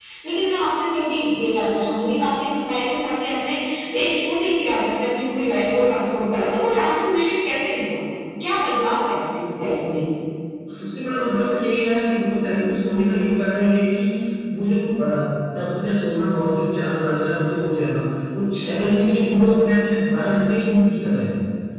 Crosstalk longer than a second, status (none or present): none